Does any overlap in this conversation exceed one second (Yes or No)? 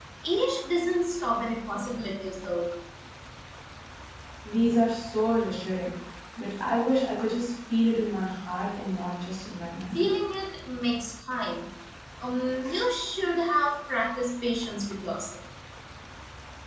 No